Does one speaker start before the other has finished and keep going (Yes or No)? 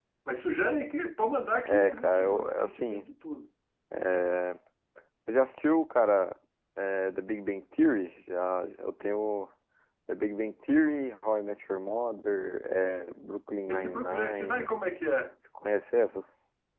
Yes